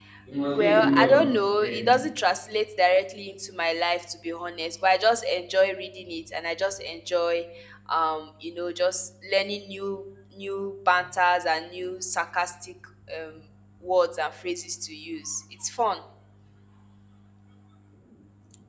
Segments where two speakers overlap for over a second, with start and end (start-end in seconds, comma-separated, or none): 0.6-2.0